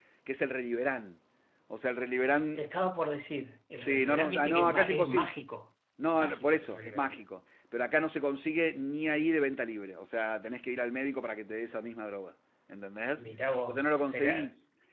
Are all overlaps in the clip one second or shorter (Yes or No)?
No